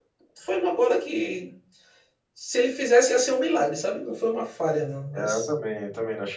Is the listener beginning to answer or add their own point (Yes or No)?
Yes